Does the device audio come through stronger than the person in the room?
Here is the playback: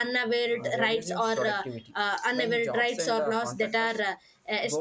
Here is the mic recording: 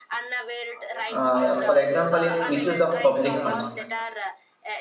No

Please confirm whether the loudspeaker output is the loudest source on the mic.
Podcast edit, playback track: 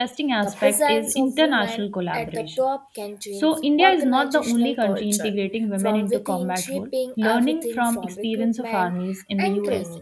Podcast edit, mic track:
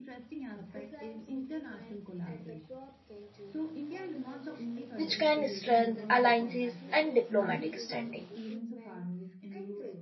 No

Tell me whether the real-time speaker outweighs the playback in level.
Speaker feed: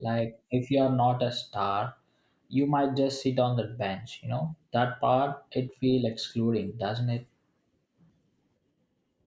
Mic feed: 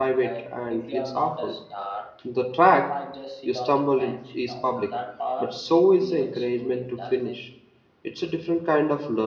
Yes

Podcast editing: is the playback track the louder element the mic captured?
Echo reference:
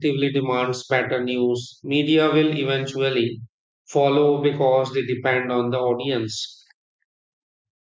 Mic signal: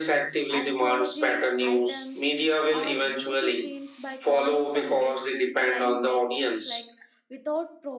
Yes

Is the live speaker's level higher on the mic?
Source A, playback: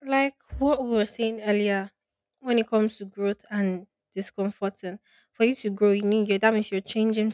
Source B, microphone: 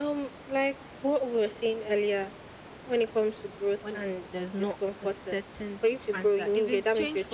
No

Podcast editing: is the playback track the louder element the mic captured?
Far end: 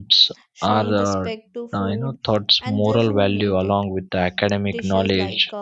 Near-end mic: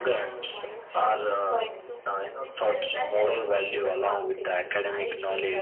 Yes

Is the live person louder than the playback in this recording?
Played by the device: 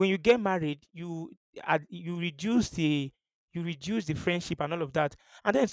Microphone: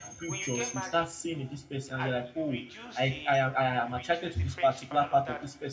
Yes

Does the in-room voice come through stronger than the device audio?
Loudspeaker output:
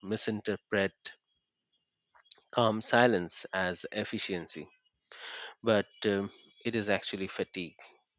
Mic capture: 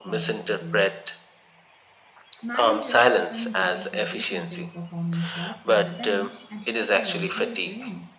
No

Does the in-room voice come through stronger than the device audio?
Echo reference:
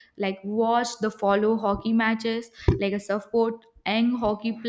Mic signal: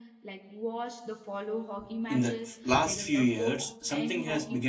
Yes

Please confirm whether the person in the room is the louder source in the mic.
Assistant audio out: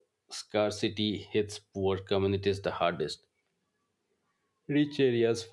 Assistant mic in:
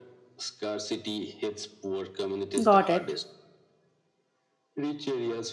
Yes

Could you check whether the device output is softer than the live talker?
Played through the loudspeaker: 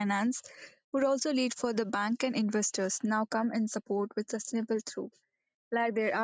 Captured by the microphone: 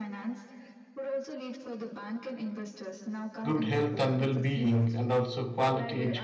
Yes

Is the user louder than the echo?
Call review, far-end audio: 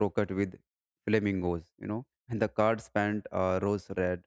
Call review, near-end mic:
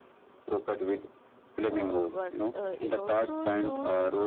No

